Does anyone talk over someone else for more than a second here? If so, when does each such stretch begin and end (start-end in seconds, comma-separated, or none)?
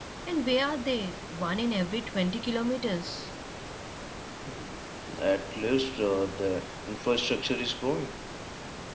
none